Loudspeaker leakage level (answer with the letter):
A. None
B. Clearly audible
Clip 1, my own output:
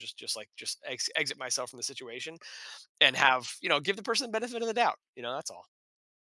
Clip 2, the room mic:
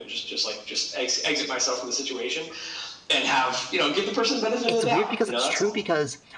B